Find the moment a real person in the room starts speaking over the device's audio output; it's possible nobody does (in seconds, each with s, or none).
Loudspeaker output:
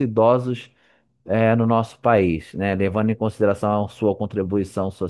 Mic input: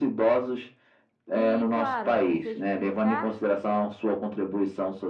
1.3 s